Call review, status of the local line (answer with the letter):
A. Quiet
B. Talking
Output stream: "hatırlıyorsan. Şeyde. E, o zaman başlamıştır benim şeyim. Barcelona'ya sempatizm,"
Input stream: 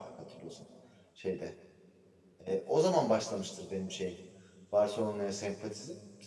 A